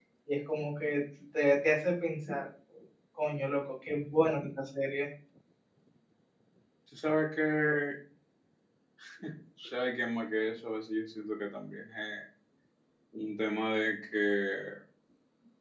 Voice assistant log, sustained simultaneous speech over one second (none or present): none